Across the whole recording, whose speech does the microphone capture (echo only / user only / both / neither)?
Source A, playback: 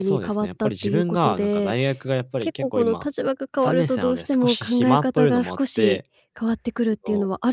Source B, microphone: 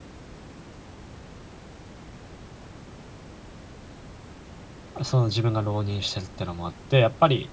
user only